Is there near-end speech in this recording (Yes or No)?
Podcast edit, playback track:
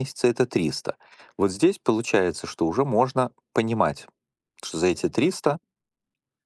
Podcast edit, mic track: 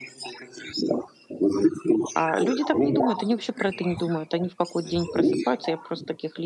Yes